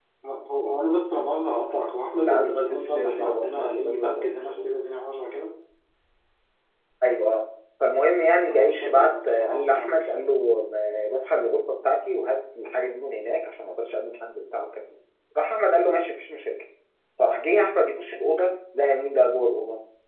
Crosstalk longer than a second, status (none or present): present